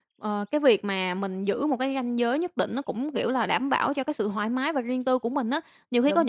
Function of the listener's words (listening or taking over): listening